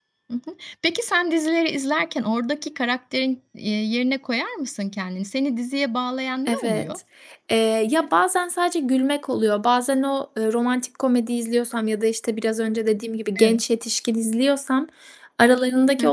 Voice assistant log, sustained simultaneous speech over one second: none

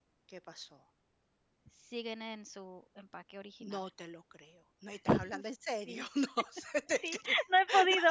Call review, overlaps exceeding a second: none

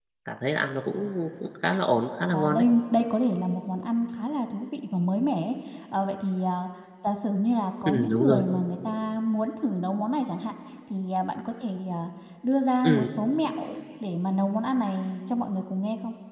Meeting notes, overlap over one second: none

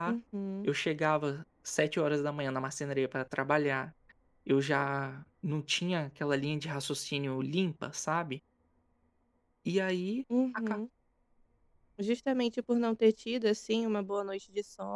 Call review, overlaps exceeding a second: none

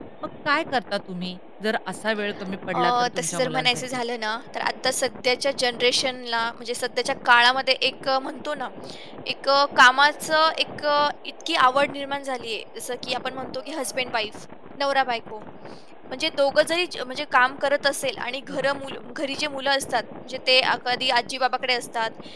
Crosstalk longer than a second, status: present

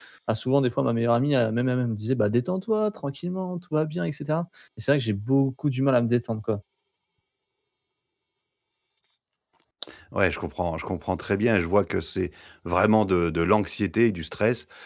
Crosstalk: none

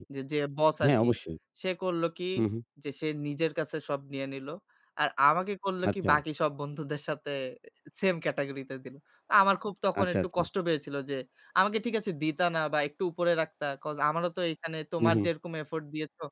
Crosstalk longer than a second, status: none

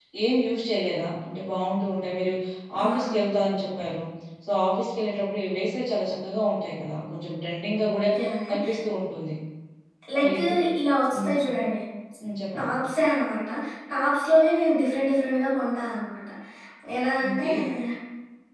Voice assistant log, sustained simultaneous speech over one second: none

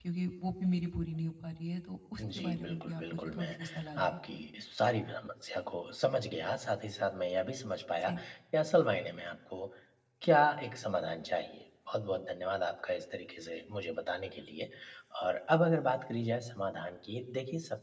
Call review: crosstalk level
present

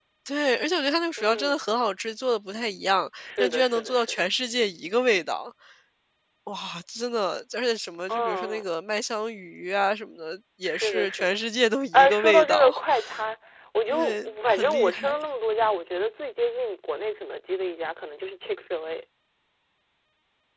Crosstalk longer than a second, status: present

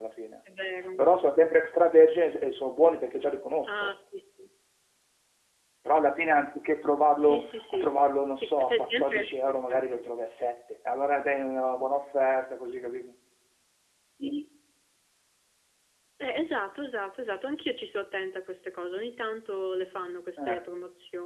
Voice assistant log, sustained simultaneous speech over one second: present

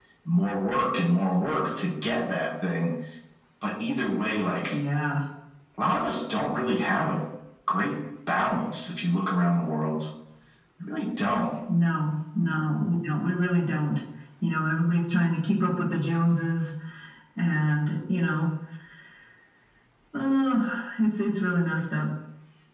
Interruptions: none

